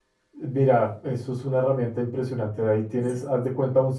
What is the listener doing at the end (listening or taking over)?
listening